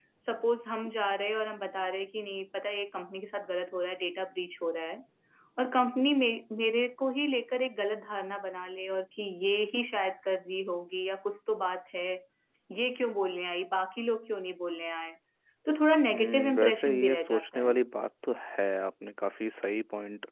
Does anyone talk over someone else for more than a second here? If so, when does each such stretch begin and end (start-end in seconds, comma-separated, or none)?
16.1-17.7